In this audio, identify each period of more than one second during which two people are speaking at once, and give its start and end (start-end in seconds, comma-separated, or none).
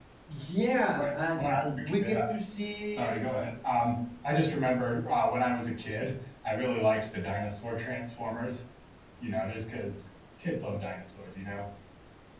none